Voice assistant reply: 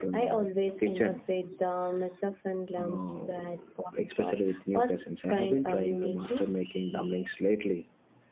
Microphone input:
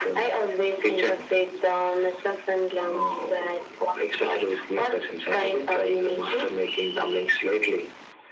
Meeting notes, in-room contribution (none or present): none